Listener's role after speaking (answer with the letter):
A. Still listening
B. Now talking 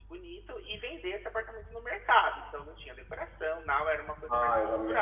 B